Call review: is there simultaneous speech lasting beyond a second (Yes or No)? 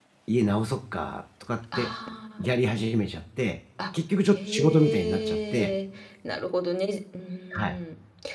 Yes